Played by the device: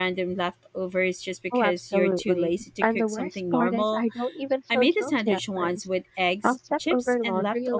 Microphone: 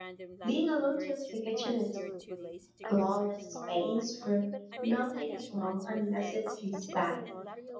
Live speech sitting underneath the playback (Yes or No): No